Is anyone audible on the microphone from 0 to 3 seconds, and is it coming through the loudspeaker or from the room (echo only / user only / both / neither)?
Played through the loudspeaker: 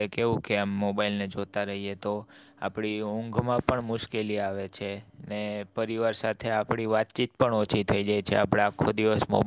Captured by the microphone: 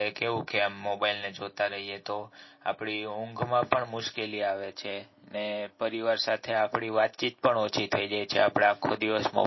echo only